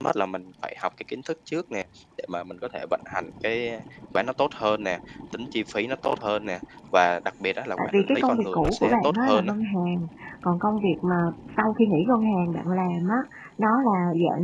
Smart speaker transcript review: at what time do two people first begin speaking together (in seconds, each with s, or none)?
7.8 s